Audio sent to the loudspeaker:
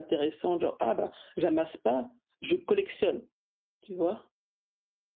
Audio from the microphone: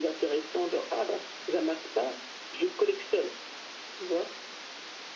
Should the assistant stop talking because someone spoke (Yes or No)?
No